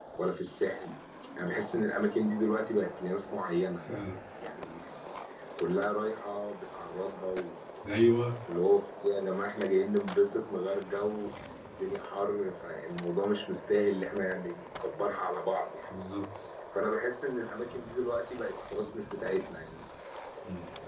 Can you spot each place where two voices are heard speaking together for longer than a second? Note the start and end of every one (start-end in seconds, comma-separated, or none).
none